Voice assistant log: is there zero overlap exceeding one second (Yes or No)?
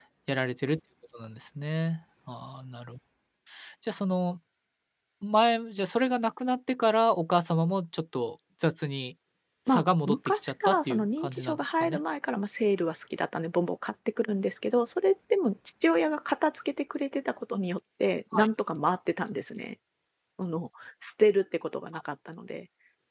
No